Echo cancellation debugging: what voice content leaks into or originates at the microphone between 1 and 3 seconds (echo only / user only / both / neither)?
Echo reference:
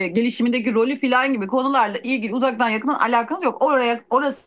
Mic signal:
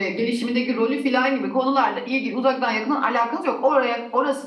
echo only